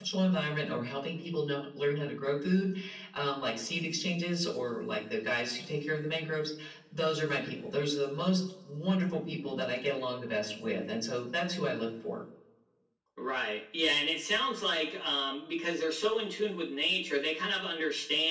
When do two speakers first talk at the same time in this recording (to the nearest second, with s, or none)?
none